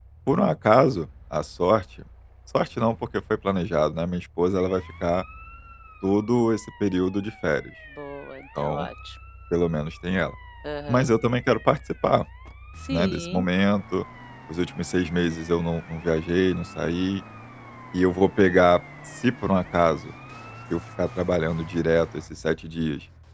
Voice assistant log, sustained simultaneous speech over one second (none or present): none